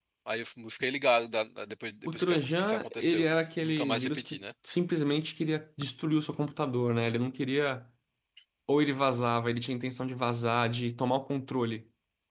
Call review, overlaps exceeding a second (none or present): present